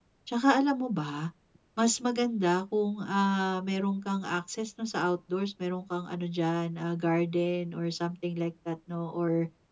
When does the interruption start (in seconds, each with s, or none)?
none